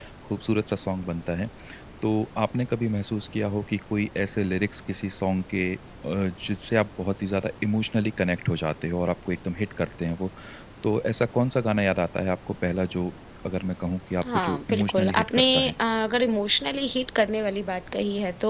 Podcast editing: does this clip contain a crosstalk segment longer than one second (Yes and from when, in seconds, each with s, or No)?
Yes, from 14.2 s